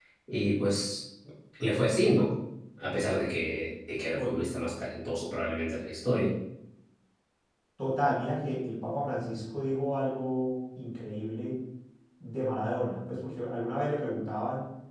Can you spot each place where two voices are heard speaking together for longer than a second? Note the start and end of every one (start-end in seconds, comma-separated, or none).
none